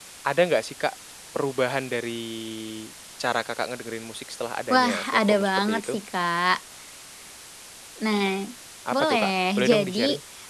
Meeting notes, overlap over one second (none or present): present